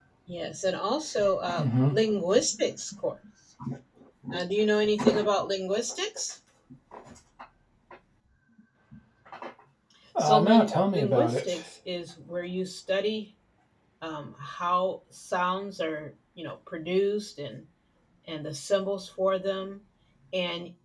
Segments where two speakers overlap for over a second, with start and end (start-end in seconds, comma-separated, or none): 10.2-11.5